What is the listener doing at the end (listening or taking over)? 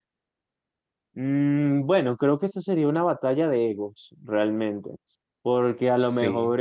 listening